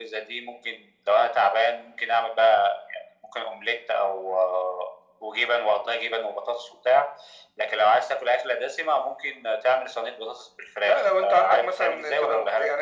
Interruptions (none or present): present